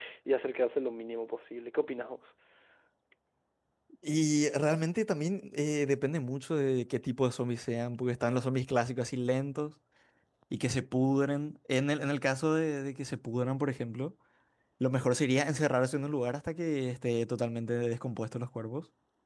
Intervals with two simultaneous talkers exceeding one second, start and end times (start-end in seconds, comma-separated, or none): none